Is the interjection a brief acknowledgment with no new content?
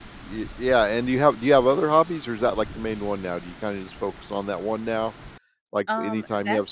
Yes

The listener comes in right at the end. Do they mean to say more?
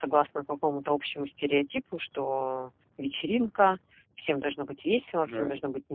No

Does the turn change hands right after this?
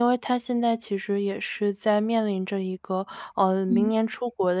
No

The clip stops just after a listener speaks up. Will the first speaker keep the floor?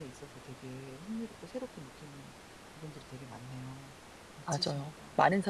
No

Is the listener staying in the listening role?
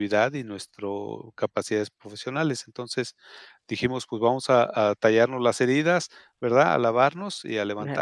Yes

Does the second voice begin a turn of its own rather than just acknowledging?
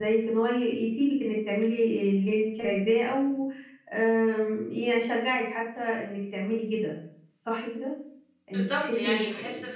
Yes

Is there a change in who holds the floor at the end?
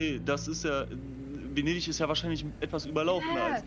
Yes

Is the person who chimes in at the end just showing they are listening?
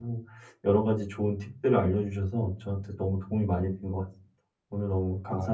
No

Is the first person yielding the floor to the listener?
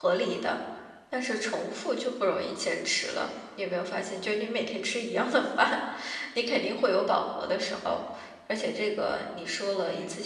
No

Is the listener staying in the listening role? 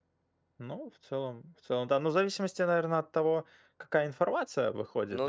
Yes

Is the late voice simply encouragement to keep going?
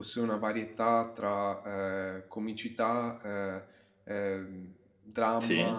Yes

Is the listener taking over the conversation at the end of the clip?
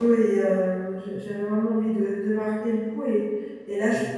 No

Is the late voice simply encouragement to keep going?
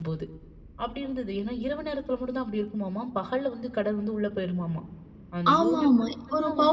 No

